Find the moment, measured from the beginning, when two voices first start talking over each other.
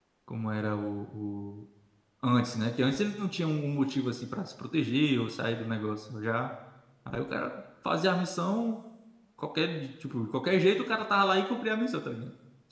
none

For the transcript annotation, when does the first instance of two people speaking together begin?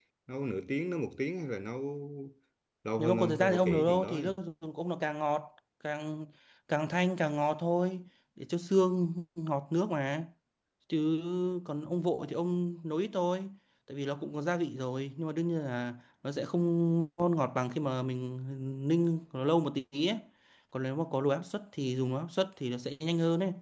3 s

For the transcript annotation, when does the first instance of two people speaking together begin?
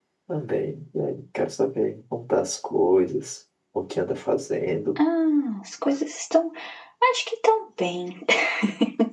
none

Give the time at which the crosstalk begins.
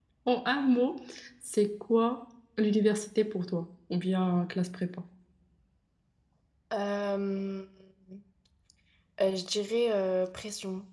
none

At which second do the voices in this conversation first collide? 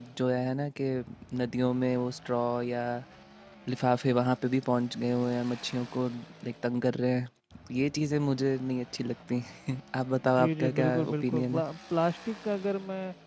10 s

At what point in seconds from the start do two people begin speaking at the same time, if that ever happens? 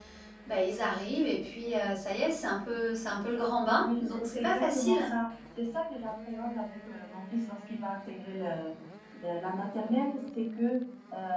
4 s

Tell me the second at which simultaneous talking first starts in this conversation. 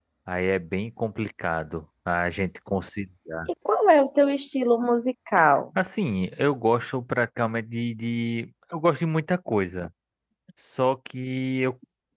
none

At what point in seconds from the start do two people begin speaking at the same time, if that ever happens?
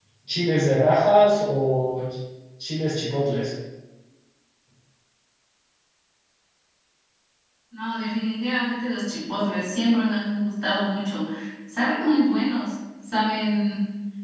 none

